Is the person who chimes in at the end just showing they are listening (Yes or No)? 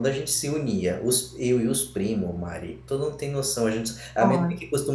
Yes